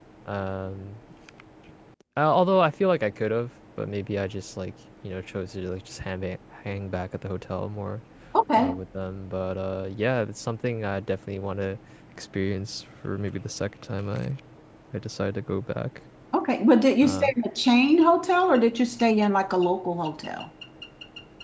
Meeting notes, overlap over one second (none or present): none